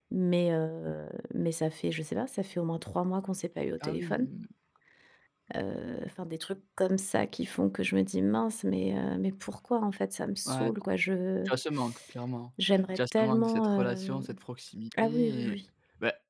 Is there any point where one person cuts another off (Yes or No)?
Yes